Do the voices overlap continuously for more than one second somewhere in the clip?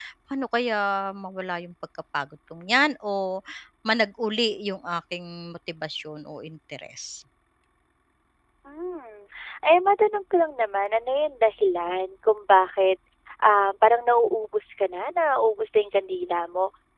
No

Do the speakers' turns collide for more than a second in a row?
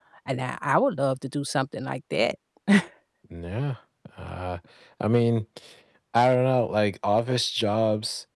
No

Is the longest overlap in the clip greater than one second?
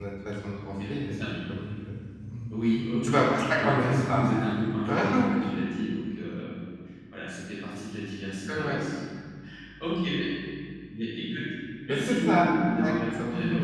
Yes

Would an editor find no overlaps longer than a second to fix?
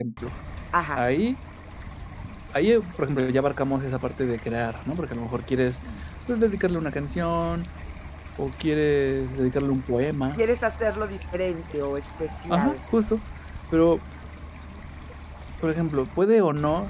Yes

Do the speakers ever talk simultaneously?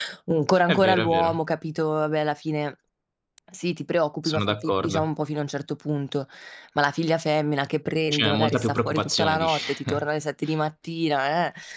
Yes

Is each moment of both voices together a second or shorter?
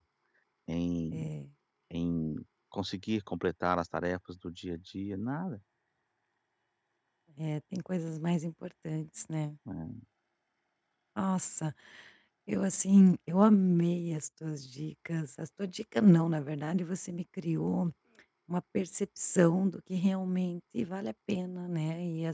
Yes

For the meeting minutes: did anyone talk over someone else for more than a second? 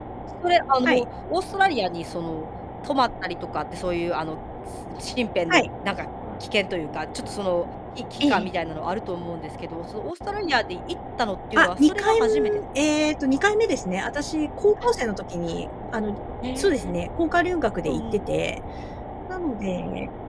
Yes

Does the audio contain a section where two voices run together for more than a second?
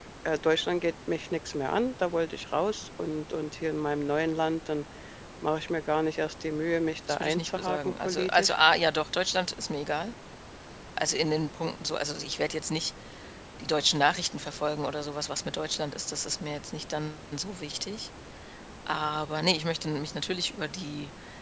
Yes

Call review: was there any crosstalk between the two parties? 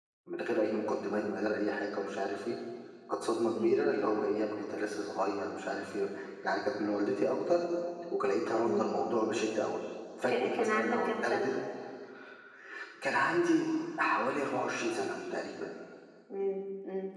Yes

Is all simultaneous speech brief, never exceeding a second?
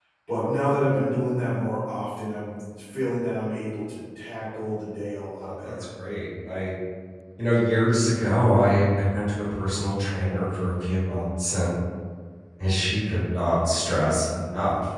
Yes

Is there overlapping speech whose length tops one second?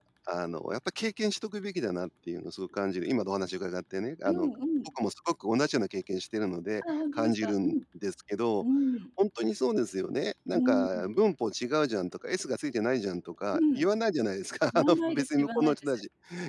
Yes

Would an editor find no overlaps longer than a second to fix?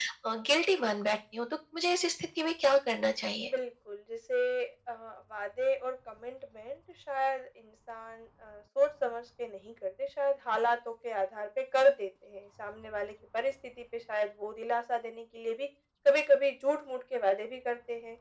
Yes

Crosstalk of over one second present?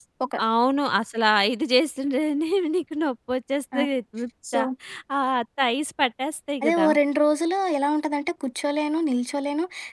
No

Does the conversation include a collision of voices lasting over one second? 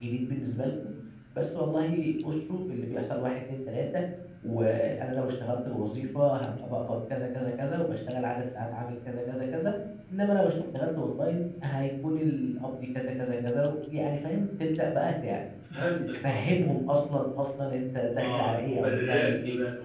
Yes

